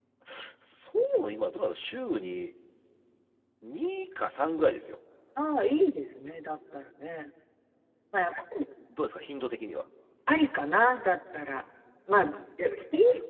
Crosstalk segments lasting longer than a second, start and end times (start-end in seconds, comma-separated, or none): none